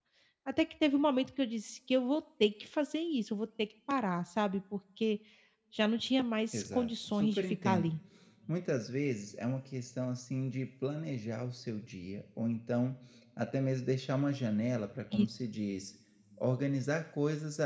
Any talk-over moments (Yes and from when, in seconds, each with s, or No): Yes, from 6.5 s